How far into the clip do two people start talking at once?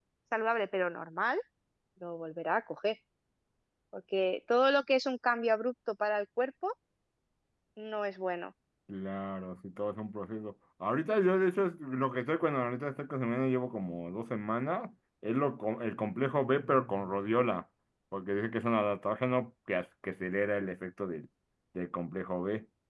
none

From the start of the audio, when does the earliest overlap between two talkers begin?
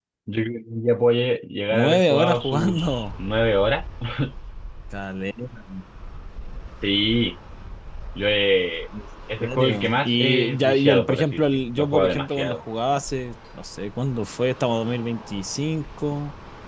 1.7 s

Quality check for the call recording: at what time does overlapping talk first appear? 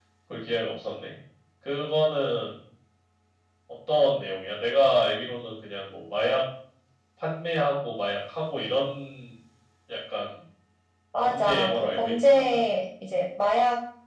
11.2 s

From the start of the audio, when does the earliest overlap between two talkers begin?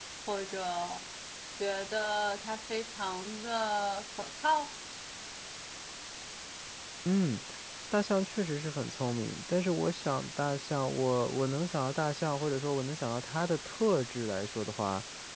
none

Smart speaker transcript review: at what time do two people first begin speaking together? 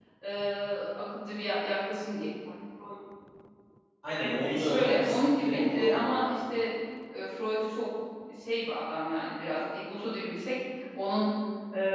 4.1 s

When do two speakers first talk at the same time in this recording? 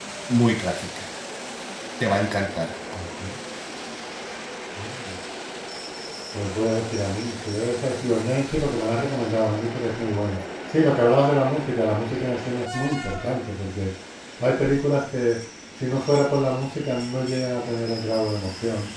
none

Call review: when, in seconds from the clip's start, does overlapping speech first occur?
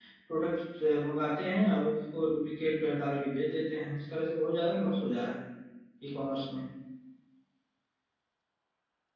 none

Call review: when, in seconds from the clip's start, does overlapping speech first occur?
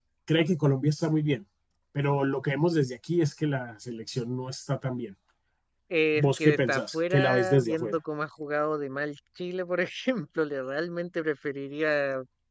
6.2 s

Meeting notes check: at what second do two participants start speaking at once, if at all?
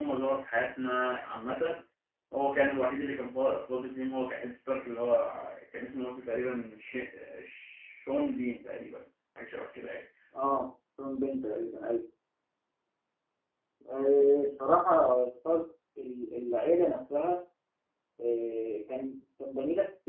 none

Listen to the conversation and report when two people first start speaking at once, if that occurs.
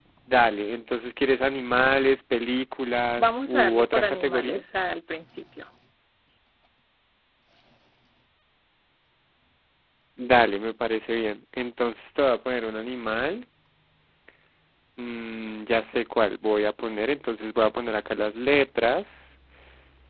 3.2 s

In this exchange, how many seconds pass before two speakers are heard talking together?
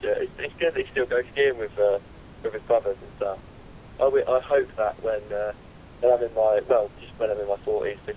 none

